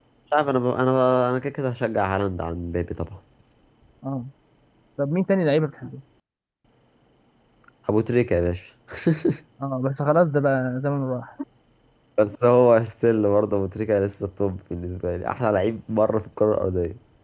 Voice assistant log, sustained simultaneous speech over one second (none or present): none